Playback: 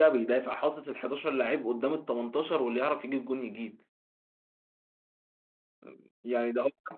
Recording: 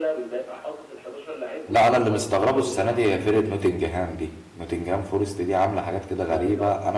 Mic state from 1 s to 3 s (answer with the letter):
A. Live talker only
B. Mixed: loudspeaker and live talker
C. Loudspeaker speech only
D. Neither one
B